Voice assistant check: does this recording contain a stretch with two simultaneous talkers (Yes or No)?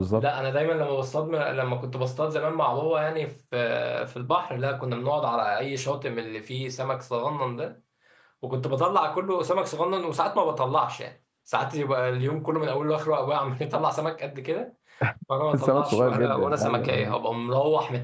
Yes